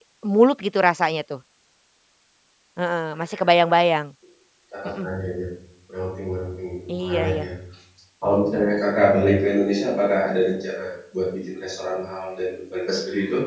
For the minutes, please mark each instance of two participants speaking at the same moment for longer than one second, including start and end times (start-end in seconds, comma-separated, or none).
none